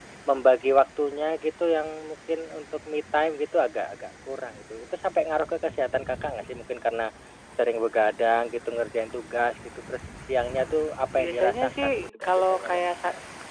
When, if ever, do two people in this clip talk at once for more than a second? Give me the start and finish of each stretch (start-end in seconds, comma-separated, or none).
11.1-12.8